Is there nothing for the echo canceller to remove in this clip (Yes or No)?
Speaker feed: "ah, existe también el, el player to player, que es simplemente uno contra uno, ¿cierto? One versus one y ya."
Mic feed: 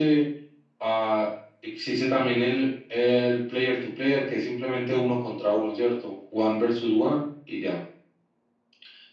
No